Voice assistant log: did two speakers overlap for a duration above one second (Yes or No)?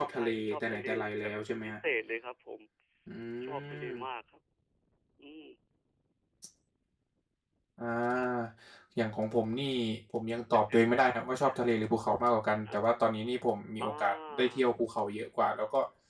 Yes